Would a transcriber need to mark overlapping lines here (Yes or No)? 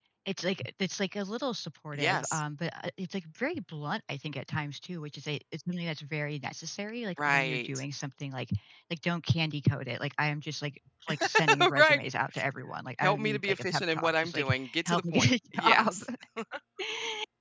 Yes